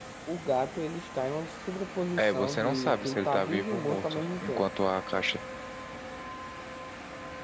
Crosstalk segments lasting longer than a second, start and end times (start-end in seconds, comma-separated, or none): 2.2-4.6